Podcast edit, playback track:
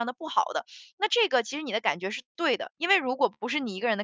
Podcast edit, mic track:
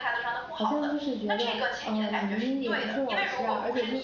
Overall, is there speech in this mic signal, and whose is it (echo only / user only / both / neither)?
both